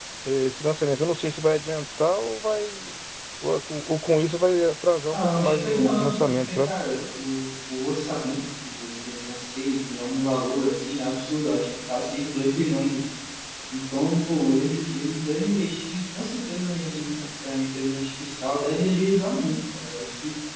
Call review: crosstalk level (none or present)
present